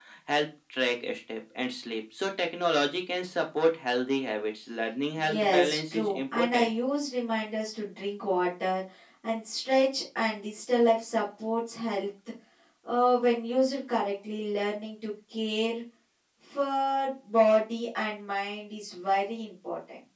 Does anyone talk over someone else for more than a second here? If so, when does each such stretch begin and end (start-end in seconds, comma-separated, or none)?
5.2-6.7